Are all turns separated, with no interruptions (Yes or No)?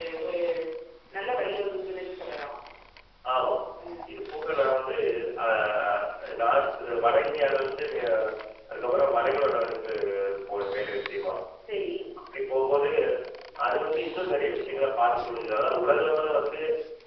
Yes